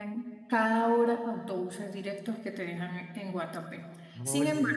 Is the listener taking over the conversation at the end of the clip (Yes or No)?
No